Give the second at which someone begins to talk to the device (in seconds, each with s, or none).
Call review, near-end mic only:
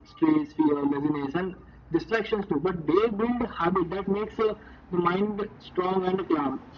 none